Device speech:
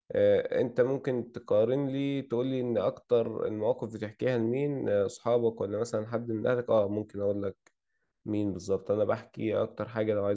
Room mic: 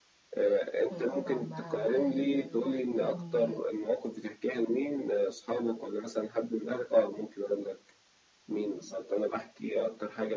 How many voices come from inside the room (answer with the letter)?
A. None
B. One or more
B